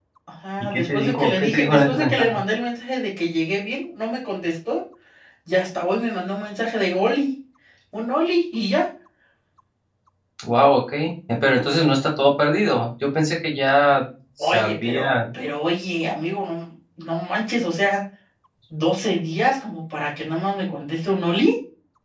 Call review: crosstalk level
present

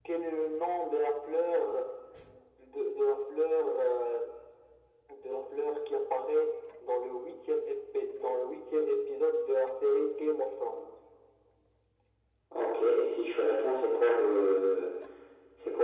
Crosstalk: none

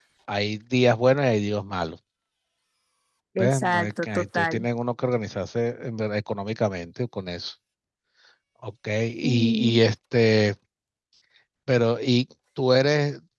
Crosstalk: present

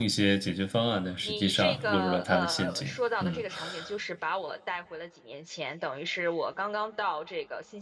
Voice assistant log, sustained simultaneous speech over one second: present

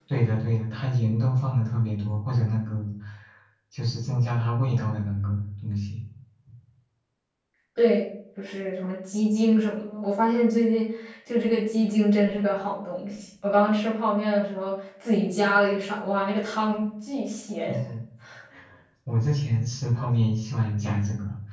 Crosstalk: none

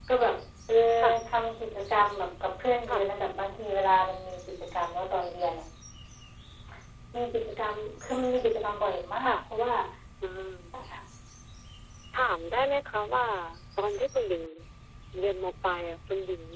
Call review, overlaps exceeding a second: none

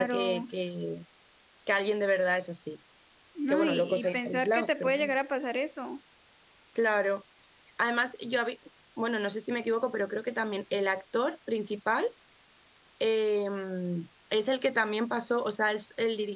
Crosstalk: present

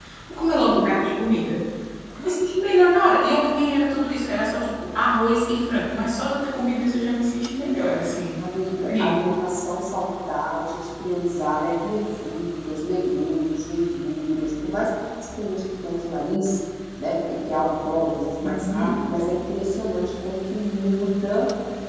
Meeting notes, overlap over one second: none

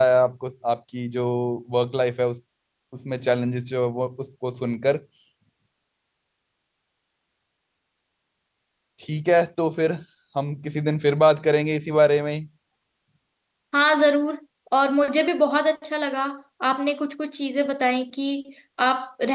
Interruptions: none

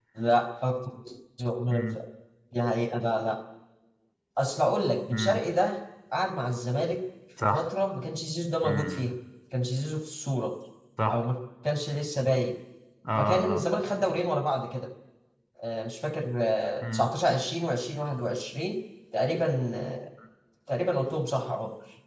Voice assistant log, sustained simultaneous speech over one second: none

